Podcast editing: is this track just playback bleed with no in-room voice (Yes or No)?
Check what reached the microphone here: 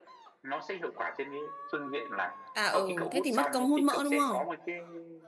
No